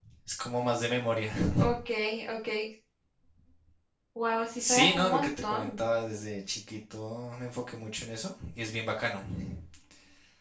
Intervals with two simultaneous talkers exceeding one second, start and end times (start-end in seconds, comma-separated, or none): 4.6-5.8